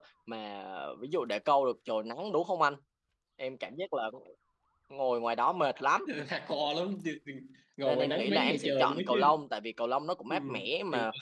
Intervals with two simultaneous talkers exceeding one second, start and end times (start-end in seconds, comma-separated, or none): 7.8-9.4